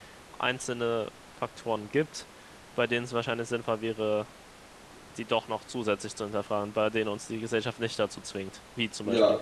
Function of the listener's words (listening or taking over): taking over